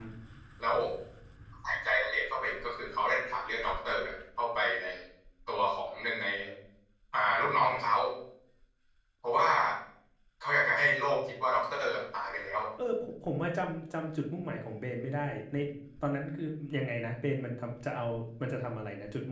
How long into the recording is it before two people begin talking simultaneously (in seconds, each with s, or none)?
none